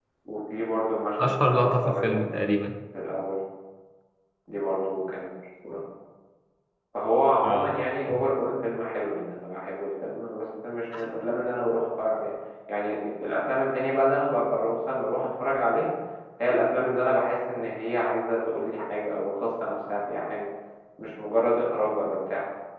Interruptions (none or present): present